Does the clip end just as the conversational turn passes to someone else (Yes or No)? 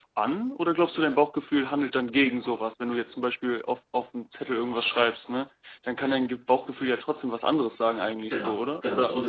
Yes